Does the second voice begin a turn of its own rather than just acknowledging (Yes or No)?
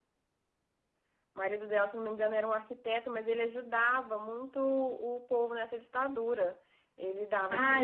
Yes